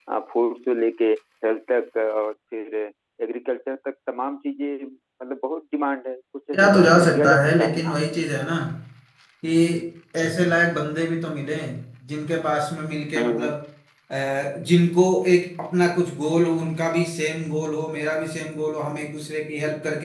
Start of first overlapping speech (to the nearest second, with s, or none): 7 s